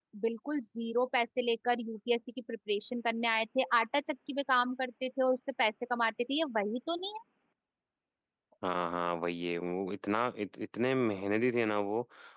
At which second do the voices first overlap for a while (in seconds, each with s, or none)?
none